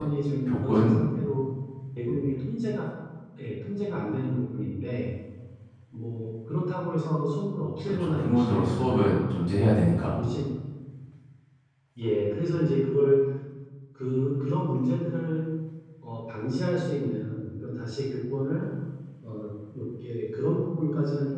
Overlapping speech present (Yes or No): Yes